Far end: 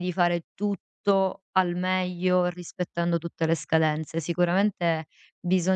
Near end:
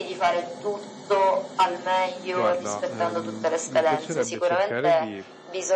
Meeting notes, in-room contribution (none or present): present